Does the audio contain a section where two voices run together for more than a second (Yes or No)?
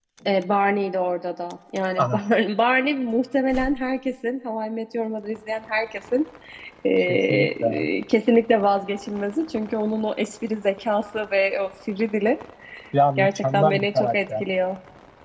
Yes